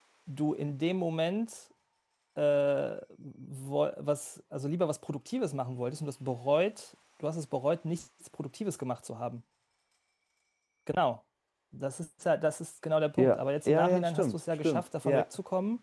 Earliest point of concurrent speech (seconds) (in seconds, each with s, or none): 13.2 s